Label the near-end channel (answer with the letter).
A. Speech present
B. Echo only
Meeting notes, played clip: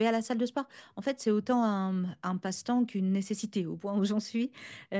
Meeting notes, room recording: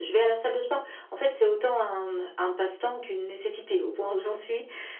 B